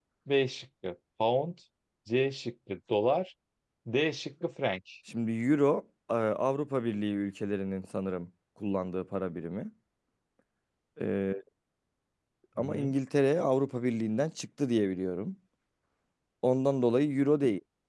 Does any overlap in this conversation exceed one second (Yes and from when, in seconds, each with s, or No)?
No